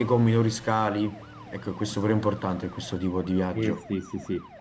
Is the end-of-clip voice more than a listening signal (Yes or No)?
Yes